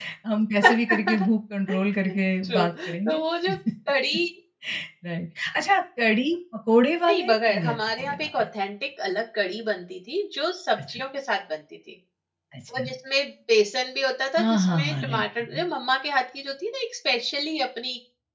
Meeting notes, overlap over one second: present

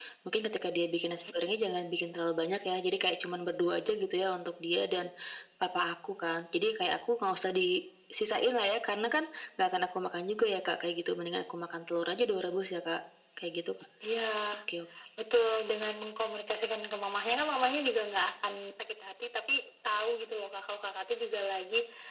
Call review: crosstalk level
none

